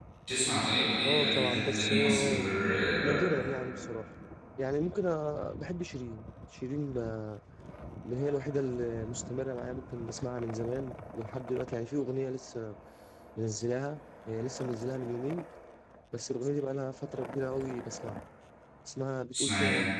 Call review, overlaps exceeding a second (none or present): present